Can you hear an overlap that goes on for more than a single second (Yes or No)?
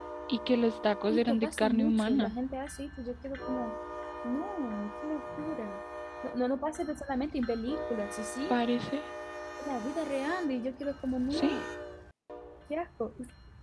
Yes